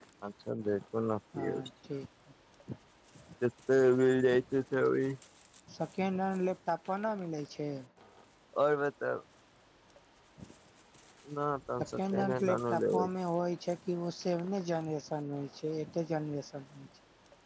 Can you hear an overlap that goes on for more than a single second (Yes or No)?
Yes